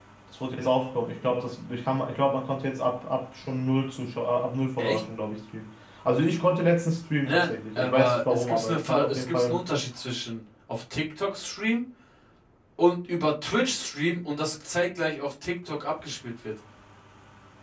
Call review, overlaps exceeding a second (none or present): present